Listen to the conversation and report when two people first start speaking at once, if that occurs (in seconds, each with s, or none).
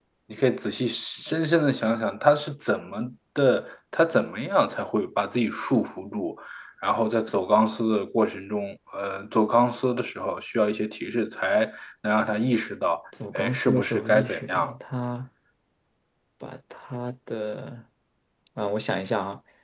13.2 s